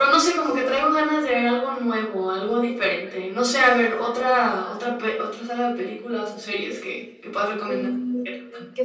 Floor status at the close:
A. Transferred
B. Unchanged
A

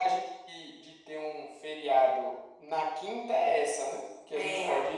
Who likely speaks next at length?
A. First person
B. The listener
A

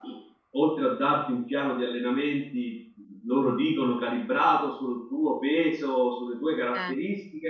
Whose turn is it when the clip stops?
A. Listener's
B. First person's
B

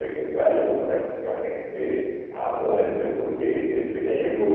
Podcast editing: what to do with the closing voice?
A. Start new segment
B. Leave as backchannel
B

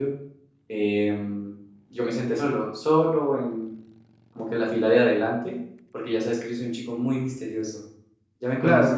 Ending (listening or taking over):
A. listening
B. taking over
B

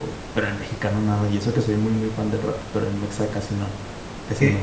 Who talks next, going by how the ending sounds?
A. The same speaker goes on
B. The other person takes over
B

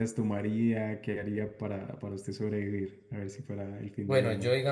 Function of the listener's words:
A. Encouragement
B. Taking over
B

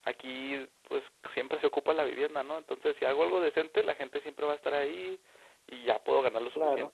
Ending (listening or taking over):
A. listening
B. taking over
A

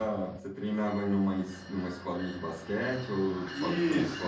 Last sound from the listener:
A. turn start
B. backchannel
A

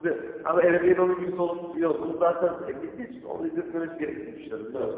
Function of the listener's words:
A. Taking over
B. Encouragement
A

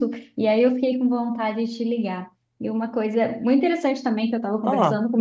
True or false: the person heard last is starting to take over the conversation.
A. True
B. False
B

